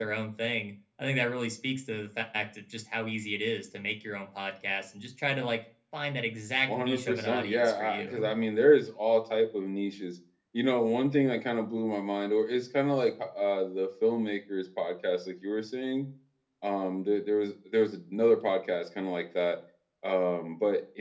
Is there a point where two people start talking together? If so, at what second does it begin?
6.7 s

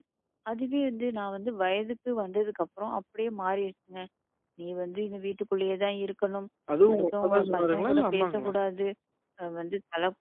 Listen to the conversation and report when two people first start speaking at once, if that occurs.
6.9 s

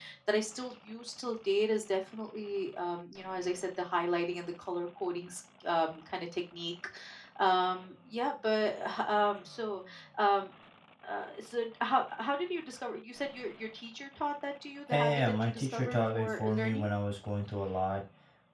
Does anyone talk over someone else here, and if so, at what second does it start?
14.9 s

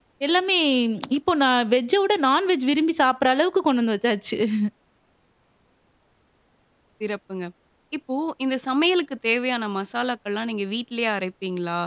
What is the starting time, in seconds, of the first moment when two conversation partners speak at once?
none

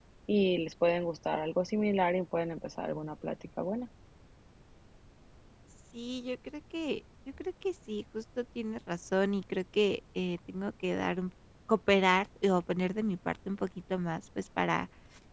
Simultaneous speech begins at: none

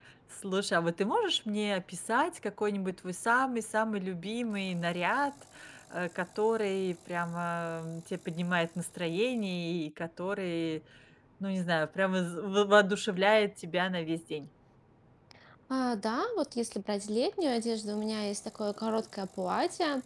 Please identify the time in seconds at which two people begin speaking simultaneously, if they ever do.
none

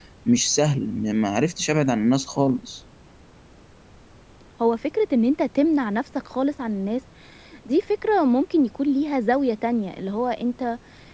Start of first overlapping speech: none

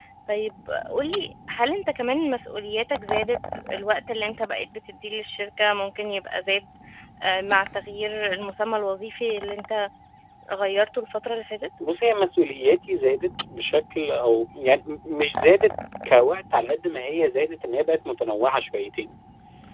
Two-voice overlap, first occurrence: none

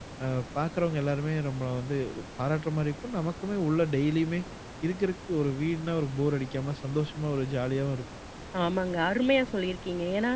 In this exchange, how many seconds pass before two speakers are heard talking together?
none

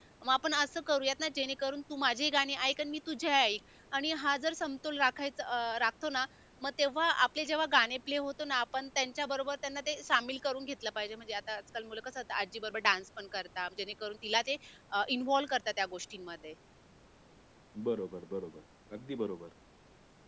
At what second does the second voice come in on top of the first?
none

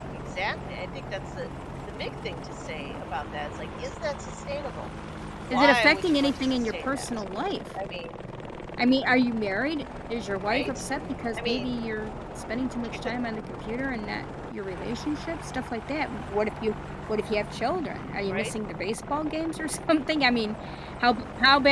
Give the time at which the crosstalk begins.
5.5 s

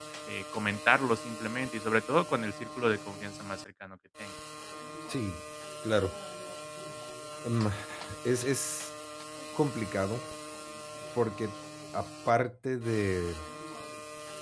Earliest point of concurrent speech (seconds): none

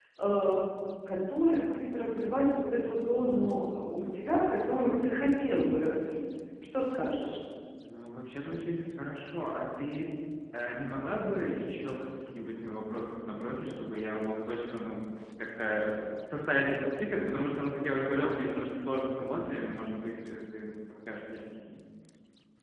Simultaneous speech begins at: none

